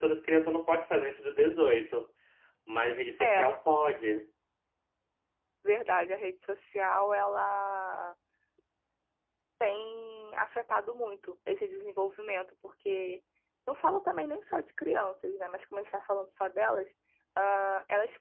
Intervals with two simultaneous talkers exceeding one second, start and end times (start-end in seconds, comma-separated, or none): none